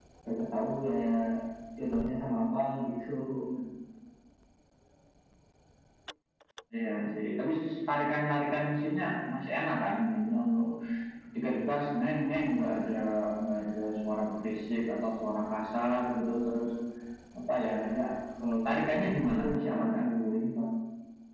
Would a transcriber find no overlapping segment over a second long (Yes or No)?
No